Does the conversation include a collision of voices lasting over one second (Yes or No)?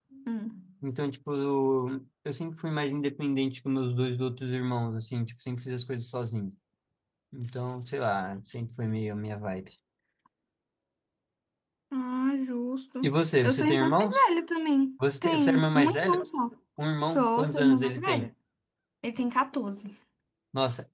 Yes